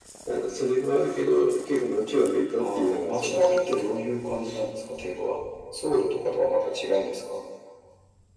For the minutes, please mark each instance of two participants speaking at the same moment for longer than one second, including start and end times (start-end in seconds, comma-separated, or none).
2.6-3.9